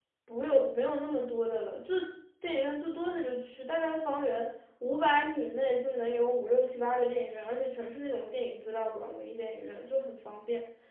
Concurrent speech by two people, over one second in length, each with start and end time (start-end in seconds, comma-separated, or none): none